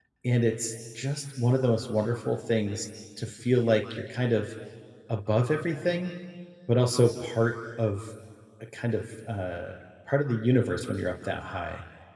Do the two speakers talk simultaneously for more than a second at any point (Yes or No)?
No